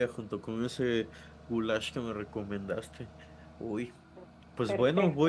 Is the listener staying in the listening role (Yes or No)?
Yes